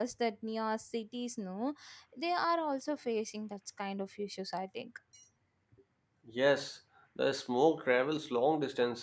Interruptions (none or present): none